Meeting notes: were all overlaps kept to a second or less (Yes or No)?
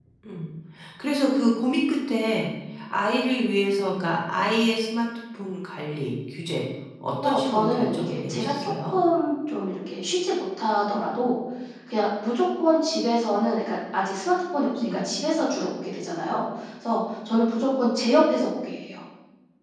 No